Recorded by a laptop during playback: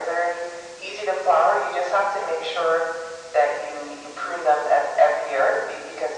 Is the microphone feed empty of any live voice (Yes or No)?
Yes